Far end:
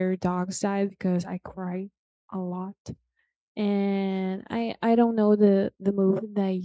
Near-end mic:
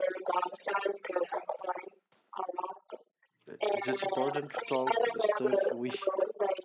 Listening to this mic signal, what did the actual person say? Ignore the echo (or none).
it's just important to talk stuff we